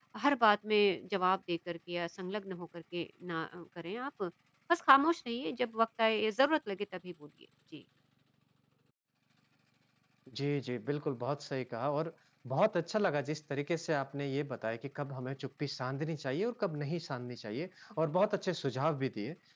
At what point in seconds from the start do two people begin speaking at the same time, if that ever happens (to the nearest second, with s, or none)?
none